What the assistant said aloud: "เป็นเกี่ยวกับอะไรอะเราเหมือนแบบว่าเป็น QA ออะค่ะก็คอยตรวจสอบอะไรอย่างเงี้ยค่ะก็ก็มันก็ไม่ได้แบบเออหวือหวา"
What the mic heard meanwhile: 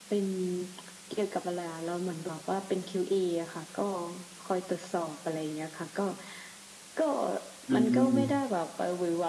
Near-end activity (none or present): present